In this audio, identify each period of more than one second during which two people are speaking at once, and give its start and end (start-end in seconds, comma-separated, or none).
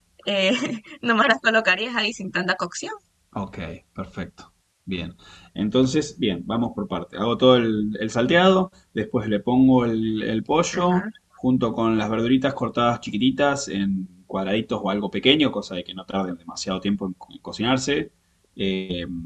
none